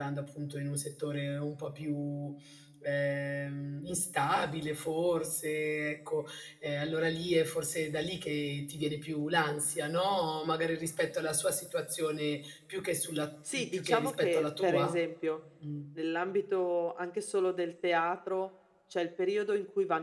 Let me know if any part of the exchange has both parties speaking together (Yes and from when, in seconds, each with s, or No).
Yes, from 13.4 s